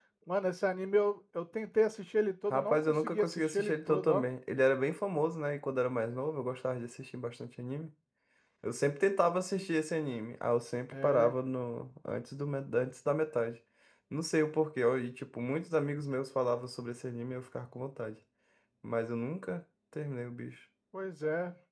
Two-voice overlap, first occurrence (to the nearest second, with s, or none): 3 s